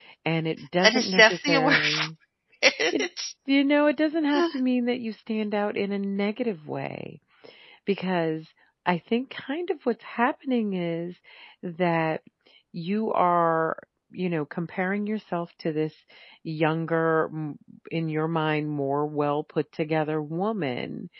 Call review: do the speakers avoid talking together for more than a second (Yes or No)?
No